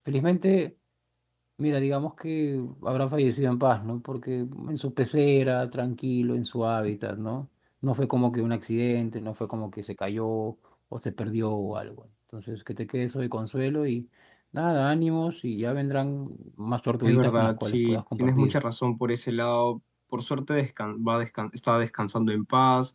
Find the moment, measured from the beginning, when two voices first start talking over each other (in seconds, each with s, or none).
17.0 s